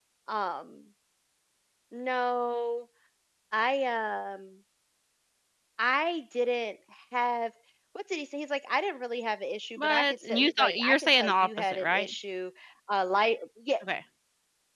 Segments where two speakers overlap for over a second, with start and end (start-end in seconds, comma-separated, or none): 9.8-12.1